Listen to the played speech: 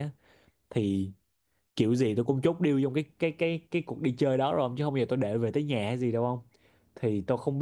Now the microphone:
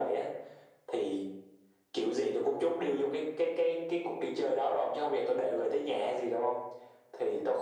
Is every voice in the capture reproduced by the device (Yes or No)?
Yes